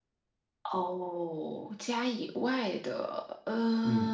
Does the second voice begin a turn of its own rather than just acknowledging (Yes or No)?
Yes